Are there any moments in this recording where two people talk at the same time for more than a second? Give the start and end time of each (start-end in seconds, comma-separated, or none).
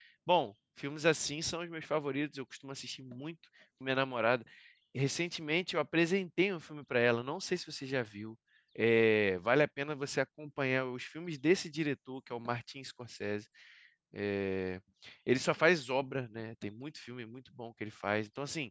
none